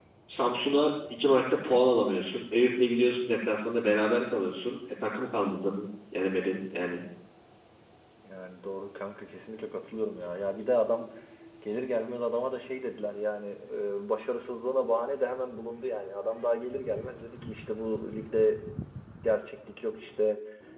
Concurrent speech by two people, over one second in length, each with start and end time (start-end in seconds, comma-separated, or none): none